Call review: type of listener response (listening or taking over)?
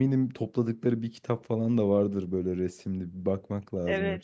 taking over